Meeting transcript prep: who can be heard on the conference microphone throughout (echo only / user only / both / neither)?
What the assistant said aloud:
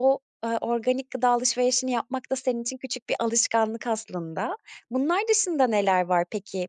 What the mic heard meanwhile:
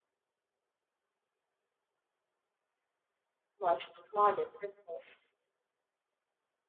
user only